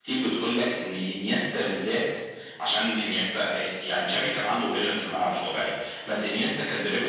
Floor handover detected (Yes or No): No